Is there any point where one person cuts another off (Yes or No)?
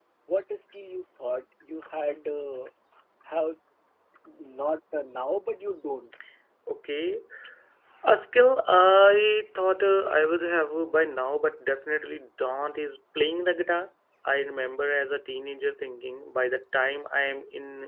No